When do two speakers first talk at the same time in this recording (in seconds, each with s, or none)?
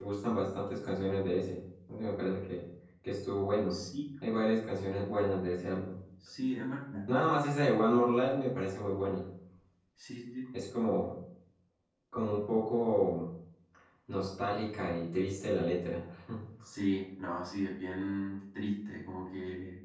none